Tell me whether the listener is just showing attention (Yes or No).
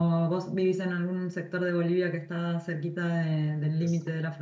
No